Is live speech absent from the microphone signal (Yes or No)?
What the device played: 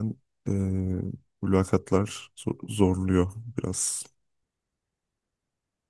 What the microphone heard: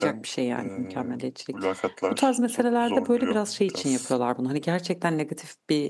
No